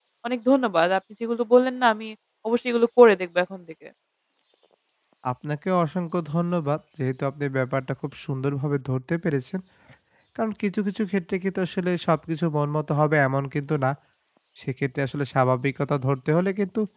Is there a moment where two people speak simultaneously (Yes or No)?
No